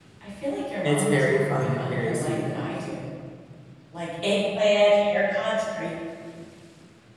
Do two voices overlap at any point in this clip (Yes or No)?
Yes